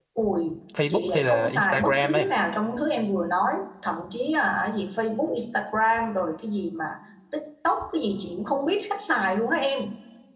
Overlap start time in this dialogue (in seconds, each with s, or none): 0.9 s